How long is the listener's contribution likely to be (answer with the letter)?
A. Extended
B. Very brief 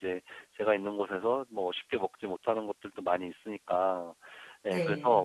B